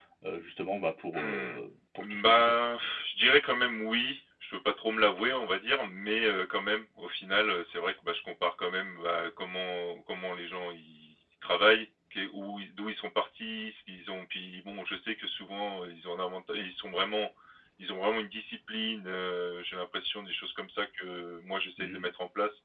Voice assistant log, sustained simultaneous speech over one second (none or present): none